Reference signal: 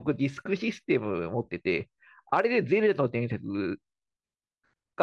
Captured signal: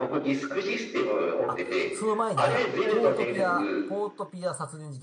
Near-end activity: present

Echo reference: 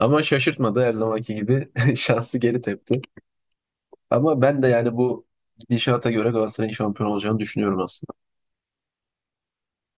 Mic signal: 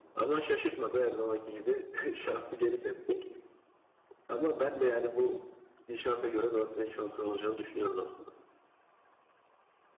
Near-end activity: none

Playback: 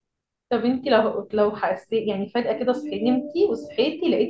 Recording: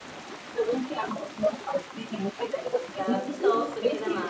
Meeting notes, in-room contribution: present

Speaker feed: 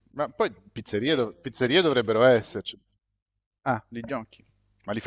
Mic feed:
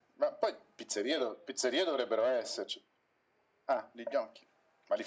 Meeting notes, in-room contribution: none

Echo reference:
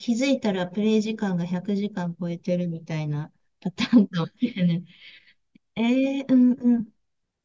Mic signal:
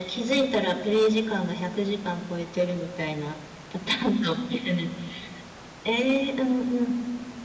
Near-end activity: none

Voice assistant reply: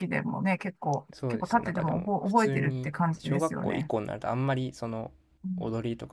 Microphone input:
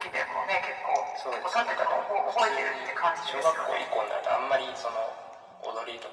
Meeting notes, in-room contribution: none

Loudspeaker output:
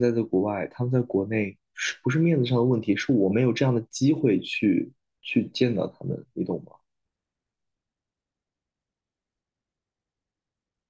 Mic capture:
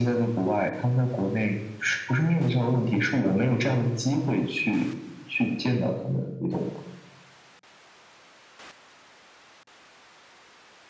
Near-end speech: none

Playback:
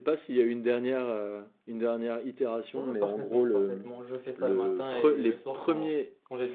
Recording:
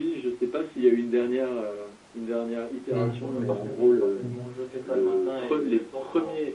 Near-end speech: present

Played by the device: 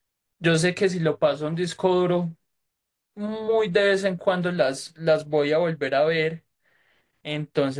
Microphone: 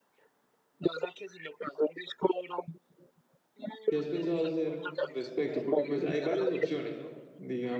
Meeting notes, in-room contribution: present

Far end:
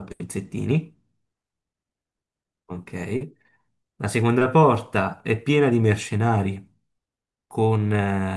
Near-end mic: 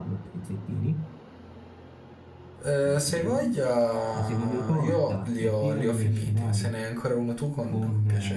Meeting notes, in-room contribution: present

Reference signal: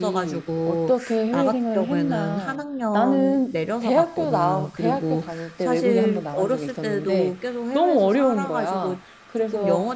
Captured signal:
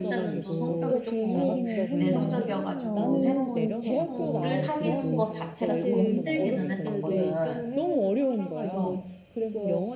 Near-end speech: present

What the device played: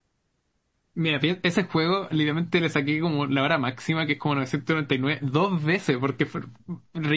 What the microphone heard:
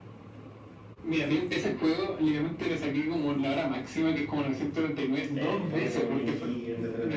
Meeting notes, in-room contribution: present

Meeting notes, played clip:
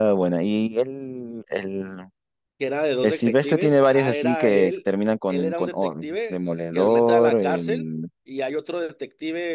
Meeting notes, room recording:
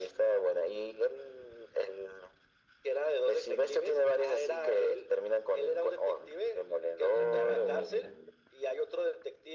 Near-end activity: present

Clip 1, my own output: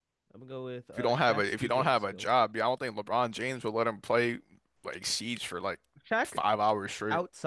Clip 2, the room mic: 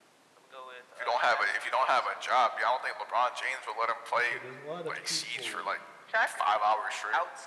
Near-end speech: present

